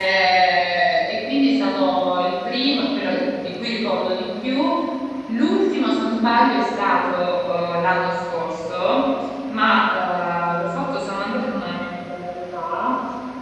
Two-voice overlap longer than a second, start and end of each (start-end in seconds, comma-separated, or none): none